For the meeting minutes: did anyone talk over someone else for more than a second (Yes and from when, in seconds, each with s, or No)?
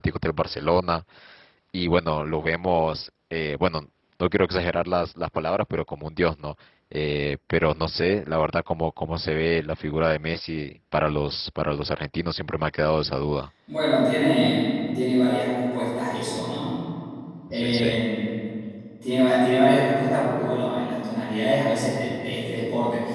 No